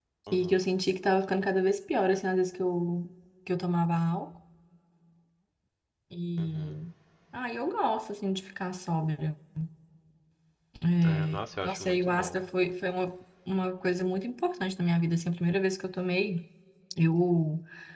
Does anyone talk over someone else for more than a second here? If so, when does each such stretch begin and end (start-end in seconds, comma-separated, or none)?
11.0-12.4